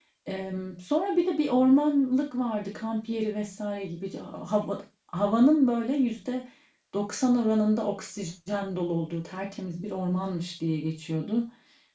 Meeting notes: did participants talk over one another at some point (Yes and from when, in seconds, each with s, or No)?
No